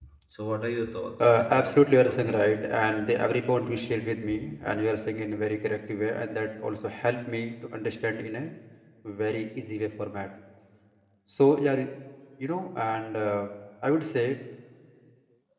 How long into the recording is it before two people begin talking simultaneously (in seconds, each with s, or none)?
1.2 s